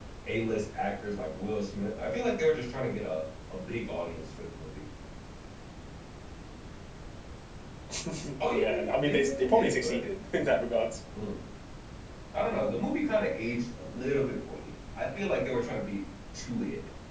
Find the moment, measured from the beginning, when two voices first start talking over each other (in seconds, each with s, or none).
8.5 s